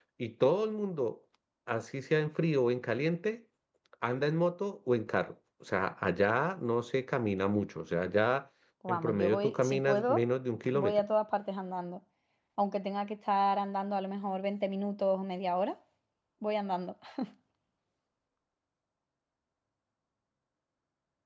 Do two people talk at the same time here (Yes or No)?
Yes